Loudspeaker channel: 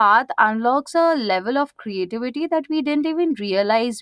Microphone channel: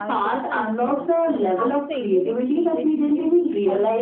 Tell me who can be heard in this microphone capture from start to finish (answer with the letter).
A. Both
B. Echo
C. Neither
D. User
A